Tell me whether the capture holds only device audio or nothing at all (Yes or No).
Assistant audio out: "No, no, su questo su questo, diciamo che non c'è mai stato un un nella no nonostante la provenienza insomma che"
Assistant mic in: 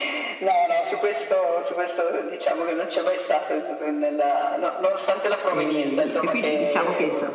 No